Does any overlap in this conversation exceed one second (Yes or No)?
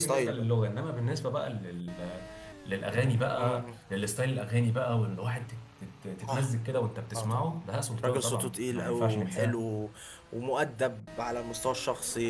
Yes